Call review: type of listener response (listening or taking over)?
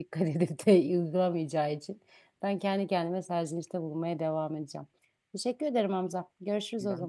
taking over